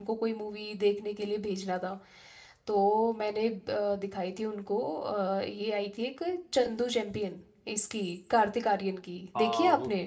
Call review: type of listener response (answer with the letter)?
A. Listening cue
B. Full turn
B